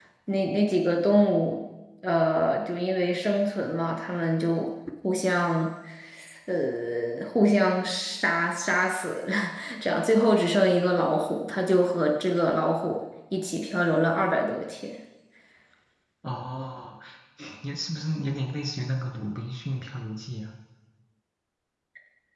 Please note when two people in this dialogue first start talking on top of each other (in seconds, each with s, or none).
none